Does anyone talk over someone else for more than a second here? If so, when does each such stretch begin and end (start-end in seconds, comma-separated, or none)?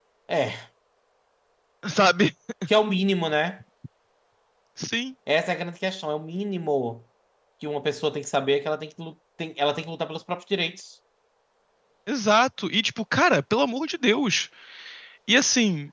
none